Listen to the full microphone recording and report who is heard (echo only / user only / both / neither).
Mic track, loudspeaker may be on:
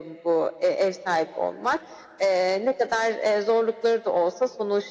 echo only